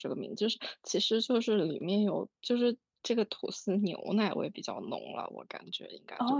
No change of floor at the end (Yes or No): No